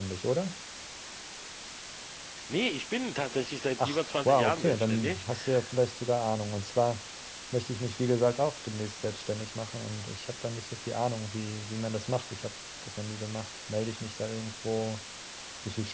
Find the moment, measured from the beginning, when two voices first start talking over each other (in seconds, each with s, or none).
3.8 s